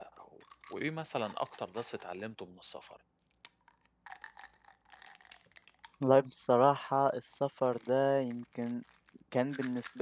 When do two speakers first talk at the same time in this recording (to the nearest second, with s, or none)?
none